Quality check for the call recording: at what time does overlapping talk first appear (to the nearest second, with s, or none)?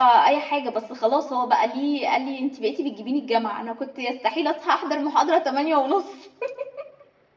none